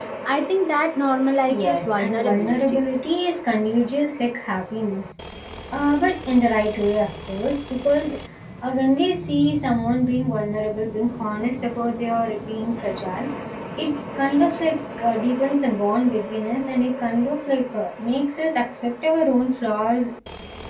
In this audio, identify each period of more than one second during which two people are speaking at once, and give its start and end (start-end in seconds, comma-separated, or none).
1.4-2.8